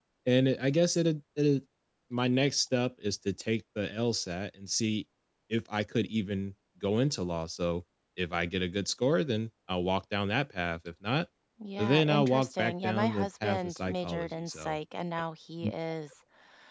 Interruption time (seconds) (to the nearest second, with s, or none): 12 s